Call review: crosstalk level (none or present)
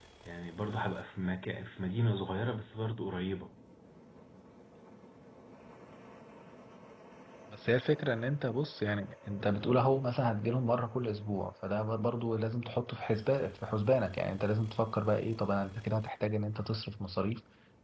none